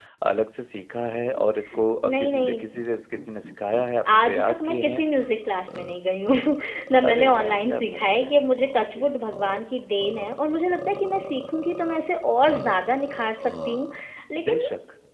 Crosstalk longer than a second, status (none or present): present